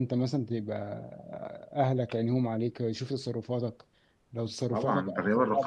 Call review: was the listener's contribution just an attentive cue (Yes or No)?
No